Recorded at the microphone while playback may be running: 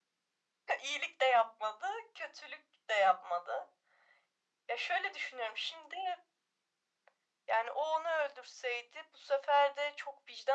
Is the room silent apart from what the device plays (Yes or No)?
Yes